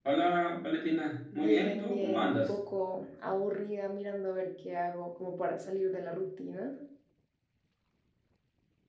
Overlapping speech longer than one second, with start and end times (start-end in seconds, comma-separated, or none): 1.3-2.5